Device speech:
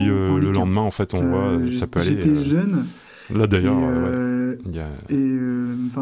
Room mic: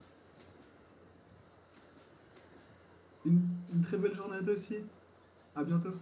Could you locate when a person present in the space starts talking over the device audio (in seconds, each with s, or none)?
3.2 s